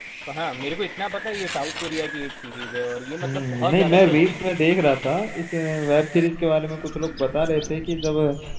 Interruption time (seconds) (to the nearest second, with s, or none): 3 s